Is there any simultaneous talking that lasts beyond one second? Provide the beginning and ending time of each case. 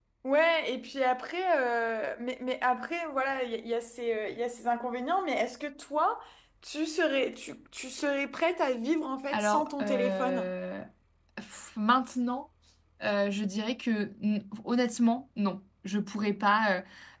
9.3-10.5

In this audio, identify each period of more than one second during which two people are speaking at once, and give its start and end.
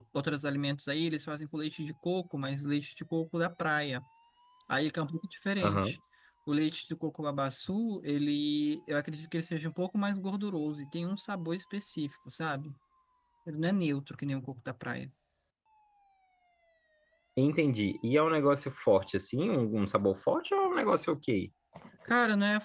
none

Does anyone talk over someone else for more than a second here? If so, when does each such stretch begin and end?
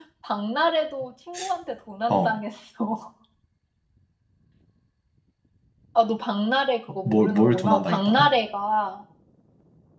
7.0-8.3

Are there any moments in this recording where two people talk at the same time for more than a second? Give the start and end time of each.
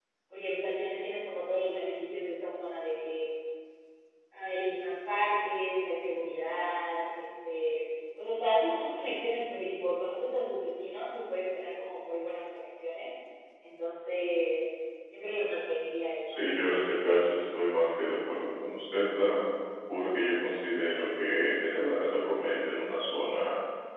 none

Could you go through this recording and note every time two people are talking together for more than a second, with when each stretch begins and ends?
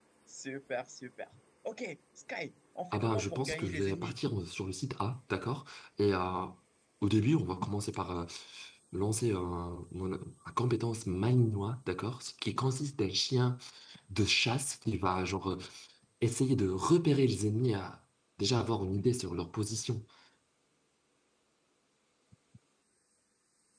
2.9-4.2

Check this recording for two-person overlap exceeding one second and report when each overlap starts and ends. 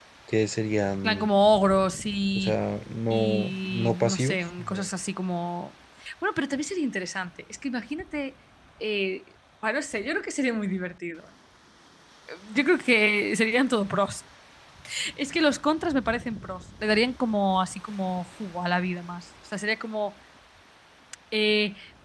3.1-4.8

